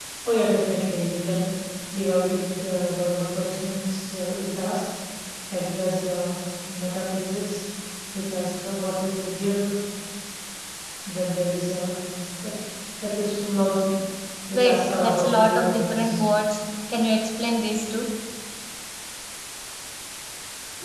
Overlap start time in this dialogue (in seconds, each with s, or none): 14.5 s